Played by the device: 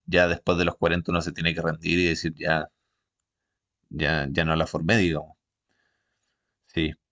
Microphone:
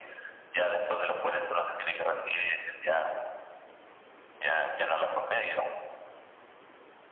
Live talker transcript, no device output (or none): none